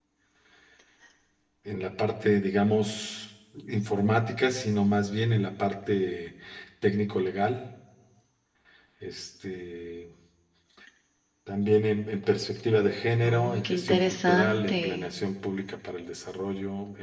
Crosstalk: present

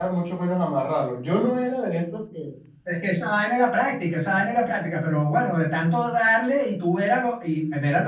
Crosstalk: none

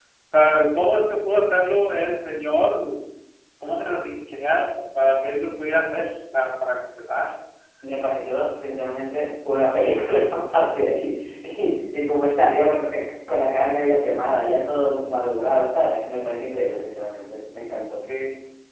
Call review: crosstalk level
none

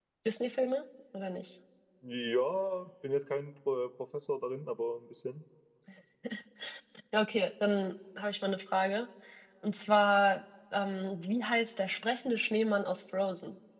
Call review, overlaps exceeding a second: none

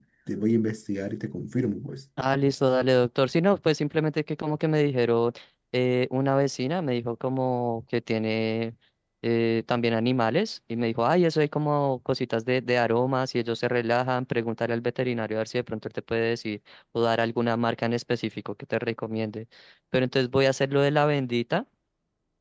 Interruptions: none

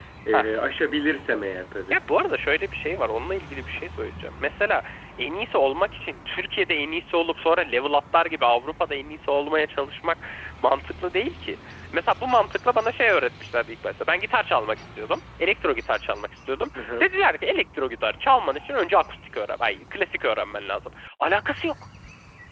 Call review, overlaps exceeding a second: none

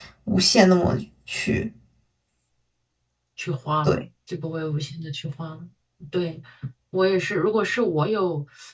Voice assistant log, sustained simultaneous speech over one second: none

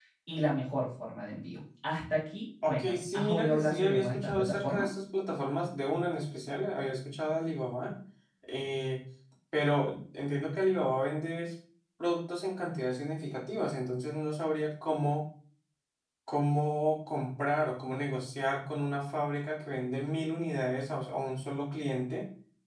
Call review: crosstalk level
present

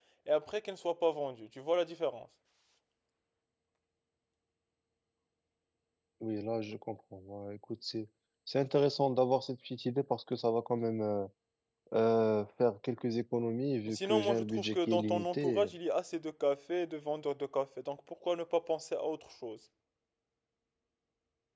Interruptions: present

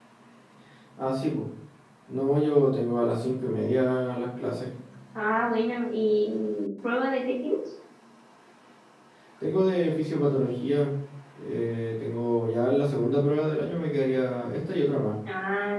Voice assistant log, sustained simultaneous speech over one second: none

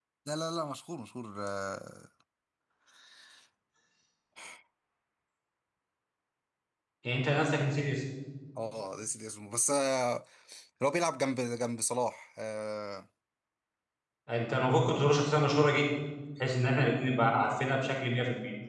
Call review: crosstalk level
none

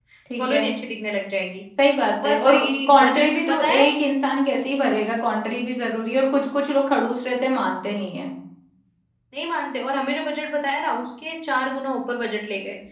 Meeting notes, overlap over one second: present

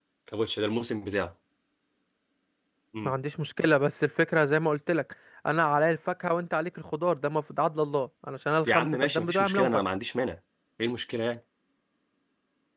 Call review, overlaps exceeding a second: present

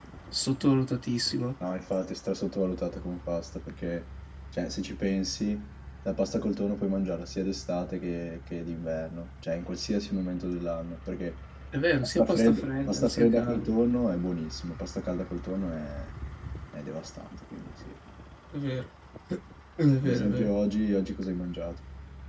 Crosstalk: present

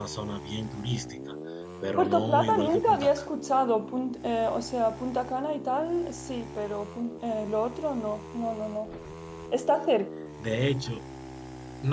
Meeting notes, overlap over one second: present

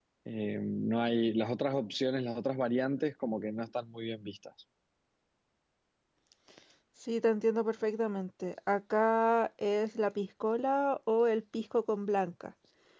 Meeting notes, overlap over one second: none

